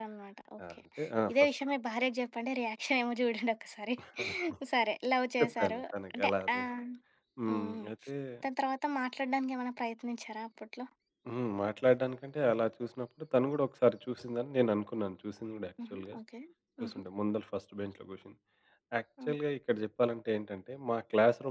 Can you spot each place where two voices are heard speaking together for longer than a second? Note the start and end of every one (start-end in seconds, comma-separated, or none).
none